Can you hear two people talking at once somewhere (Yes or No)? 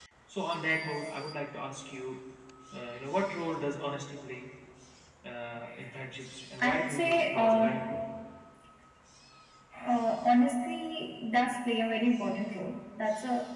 Yes